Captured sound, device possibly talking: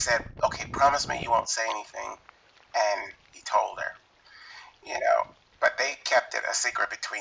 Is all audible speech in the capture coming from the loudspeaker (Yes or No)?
Yes